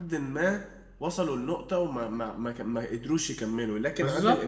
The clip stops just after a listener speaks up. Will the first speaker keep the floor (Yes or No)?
Yes